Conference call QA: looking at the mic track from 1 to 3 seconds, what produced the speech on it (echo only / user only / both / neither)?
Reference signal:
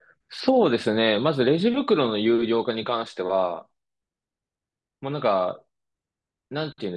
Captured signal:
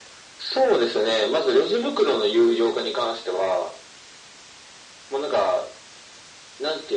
echo only